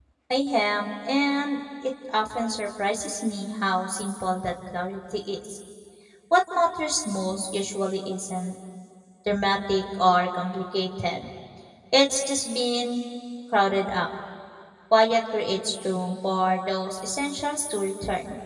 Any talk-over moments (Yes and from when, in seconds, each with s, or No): No